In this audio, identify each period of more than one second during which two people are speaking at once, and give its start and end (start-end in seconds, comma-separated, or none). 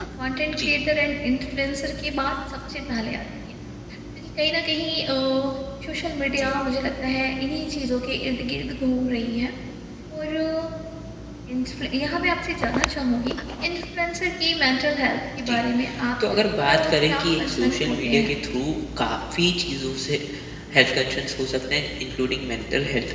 16.6-18.3